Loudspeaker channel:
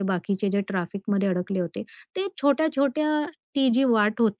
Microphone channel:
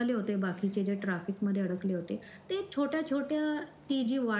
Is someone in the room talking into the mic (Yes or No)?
No